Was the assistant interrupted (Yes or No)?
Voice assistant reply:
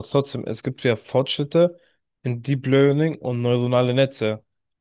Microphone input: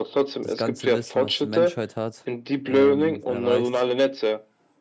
Yes